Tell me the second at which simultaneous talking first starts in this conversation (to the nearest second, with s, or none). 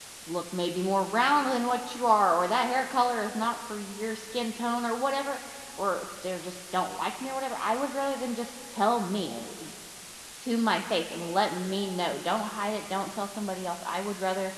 none